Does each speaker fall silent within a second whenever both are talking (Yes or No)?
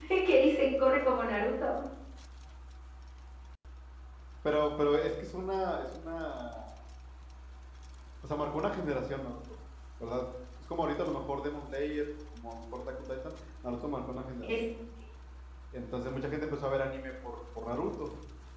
Yes